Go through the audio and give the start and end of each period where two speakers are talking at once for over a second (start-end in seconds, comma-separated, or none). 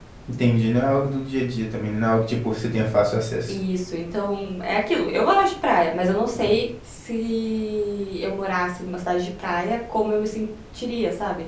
none